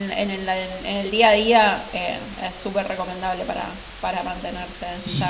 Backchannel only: No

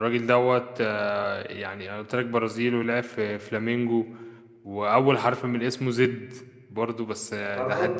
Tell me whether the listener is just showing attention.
Yes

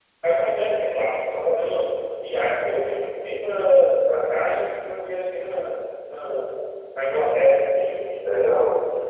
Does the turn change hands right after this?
Yes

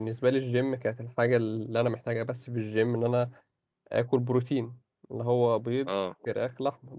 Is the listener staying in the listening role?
Yes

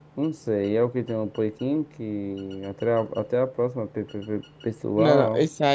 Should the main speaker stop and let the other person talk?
Yes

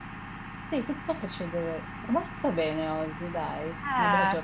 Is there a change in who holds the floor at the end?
Yes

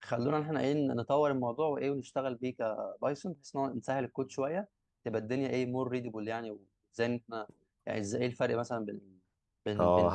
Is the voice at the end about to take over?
Yes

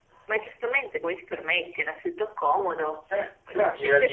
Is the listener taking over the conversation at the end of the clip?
Yes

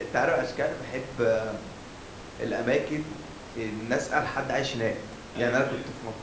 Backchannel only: Yes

